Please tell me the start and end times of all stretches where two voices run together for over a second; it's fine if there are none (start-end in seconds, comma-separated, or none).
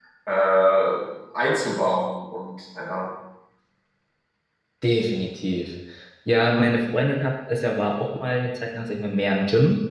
none